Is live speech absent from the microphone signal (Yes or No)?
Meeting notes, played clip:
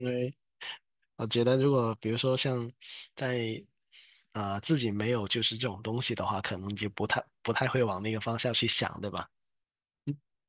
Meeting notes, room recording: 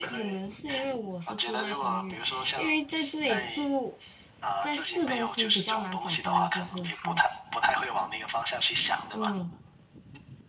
No